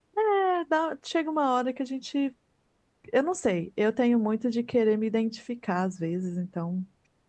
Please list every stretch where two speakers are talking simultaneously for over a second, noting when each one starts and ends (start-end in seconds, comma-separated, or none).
none